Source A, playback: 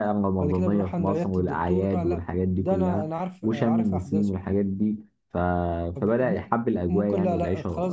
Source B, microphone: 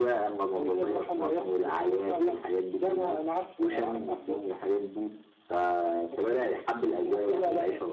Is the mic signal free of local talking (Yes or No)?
Yes